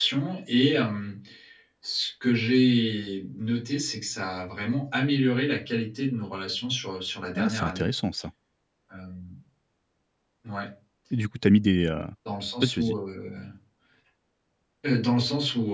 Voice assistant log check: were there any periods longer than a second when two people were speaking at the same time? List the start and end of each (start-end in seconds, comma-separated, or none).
none